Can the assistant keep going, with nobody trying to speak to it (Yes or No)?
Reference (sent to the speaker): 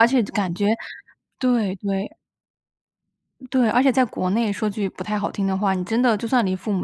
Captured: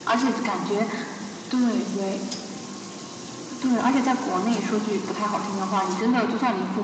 Yes